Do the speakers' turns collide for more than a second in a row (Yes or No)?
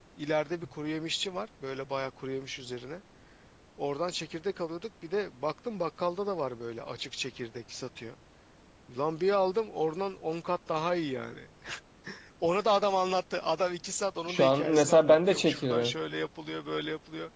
Yes